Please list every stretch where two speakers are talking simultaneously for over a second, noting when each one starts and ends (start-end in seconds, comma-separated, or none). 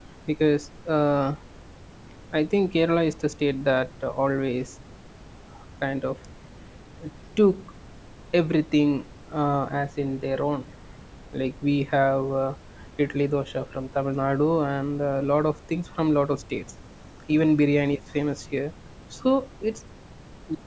none